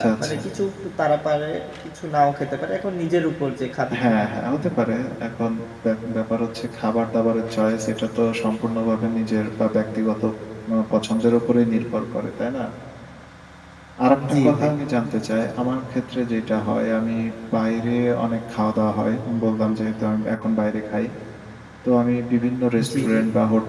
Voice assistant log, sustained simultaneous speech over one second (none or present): none